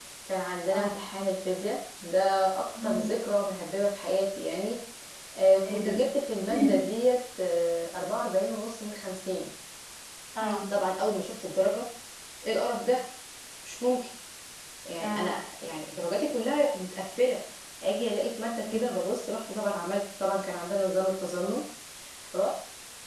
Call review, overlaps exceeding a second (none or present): none